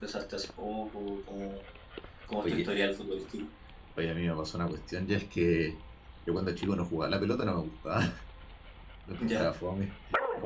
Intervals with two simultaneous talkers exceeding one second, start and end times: none

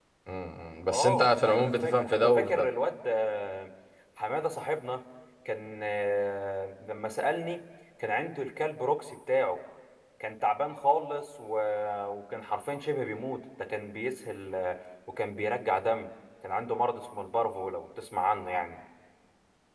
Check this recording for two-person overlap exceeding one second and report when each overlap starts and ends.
0.9-2.7

